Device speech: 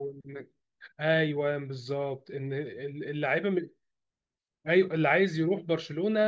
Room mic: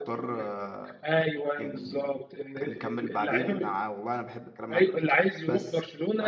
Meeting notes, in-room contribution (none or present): present